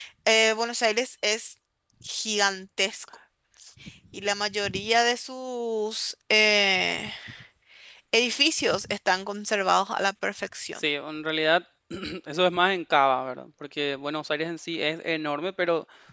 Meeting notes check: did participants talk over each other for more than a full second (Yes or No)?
No